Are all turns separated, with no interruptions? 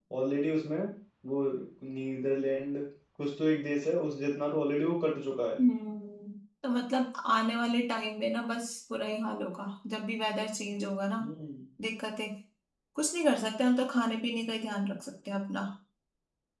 Yes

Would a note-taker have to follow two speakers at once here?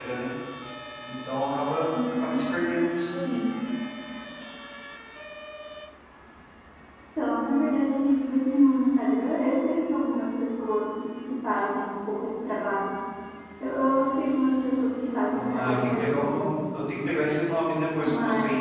Yes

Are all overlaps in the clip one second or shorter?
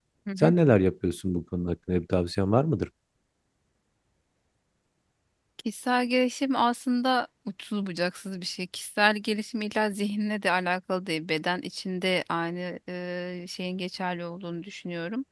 Yes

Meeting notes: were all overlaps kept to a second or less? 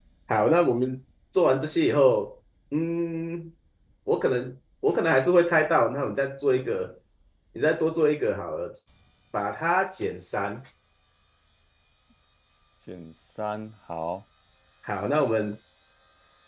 Yes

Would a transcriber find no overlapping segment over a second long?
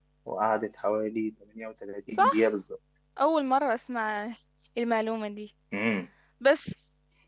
Yes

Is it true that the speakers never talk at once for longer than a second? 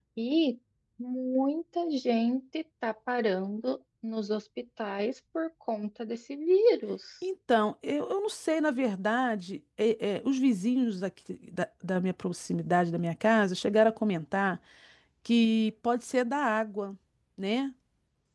Yes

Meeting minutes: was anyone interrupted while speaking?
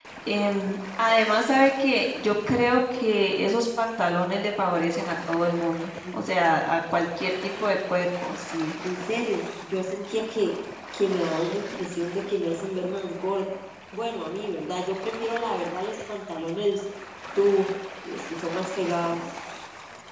No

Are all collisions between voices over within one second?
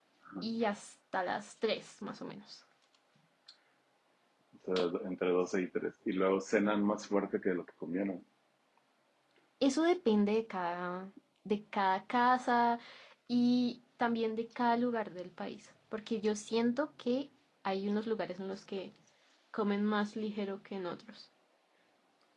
Yes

